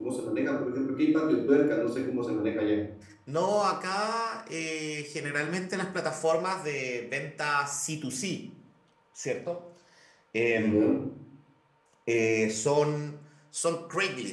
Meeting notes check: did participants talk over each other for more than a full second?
No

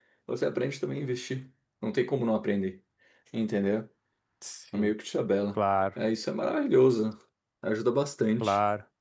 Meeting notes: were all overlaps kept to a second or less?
Yes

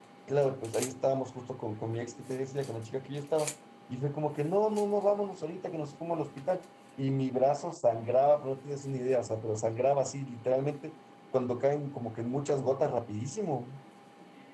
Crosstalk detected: No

